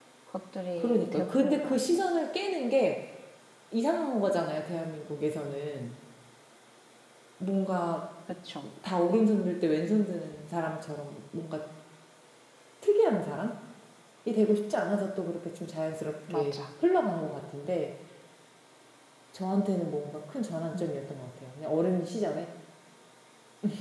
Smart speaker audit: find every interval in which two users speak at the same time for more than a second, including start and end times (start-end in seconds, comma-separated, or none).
0.8-2.0